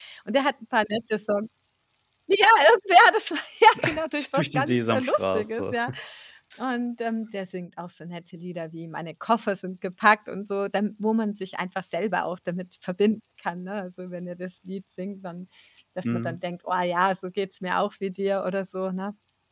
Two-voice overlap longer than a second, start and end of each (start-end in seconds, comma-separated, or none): 4.3-5.8